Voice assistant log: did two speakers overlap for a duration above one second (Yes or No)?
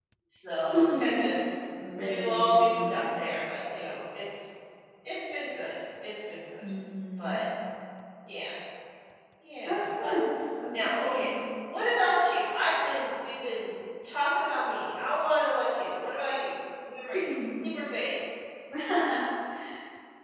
Yes